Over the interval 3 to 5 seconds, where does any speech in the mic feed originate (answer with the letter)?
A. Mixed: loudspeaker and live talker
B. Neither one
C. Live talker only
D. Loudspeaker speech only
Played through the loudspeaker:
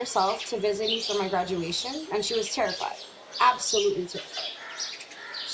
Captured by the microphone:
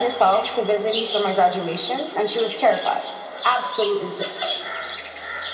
D